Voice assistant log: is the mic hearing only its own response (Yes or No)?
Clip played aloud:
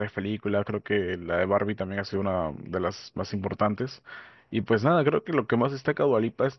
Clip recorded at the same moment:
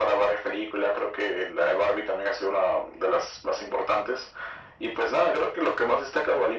Yes